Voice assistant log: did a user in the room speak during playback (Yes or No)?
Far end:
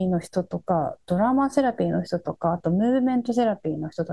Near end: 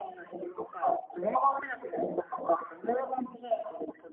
No